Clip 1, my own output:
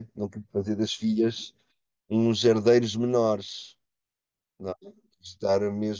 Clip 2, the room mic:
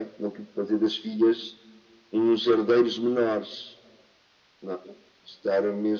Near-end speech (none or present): none